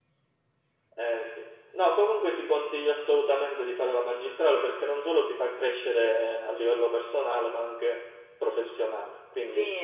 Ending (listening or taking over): taking over